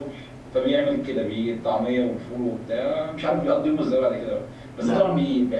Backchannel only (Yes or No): Yes